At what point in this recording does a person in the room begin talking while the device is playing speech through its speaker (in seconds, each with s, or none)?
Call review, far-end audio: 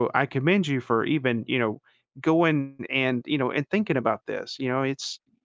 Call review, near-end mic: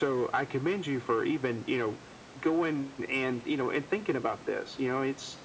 none